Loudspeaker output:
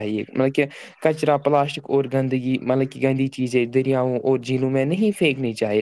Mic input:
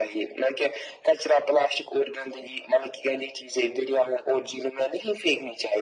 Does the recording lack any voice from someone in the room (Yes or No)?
Yes